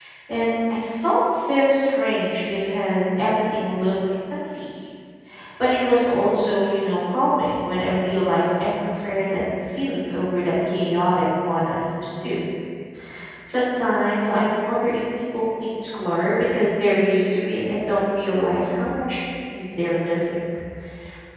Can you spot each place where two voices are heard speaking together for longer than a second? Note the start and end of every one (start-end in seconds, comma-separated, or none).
none